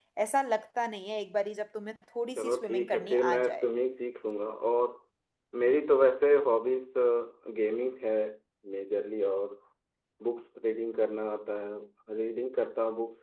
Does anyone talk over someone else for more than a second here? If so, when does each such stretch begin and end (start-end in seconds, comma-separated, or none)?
2.4-3.7